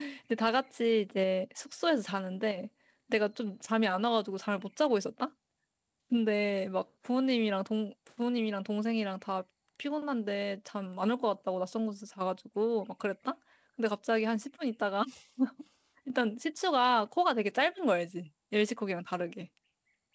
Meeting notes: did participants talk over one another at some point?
No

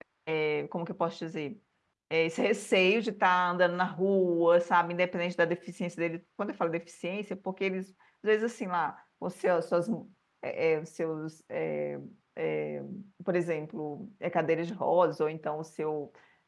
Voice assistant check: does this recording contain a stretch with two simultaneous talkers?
No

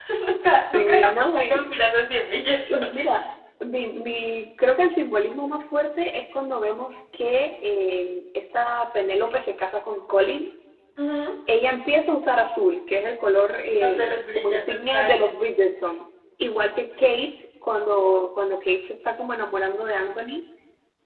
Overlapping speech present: Yes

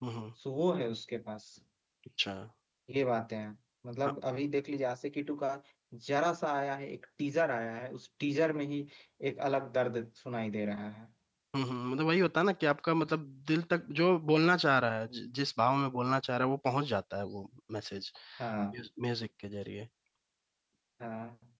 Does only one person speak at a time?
Yes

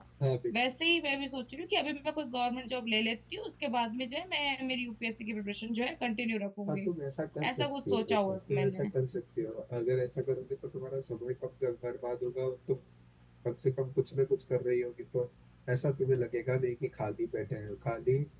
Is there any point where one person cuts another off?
Yes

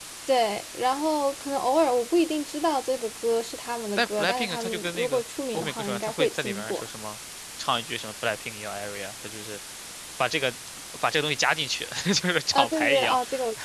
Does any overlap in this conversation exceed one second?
Yes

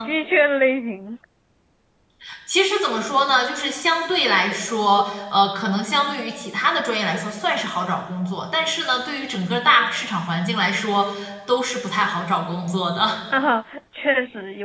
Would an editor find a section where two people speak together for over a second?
No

